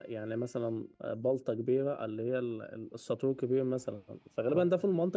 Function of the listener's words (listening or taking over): listening